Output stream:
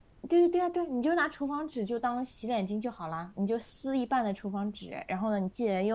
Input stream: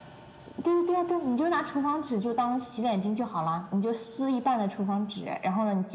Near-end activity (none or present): none